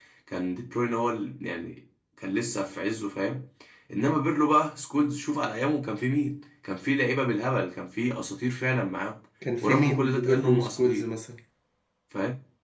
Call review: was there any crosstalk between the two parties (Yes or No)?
Yes